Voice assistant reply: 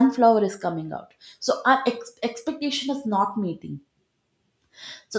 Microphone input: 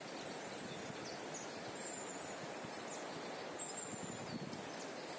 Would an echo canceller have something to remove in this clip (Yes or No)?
No